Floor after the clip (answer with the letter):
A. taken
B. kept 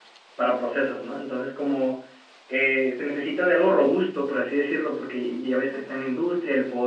B